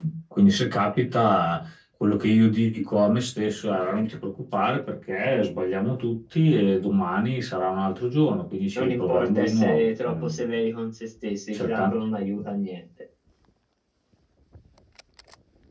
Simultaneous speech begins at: 8.8 s

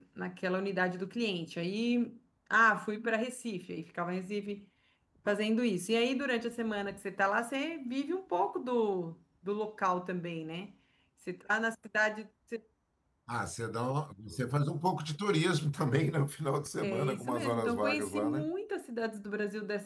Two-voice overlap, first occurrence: 16.8 s

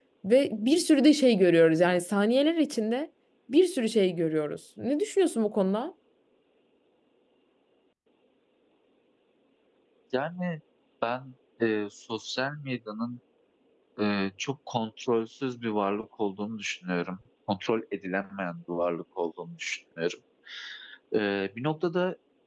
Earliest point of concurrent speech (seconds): none

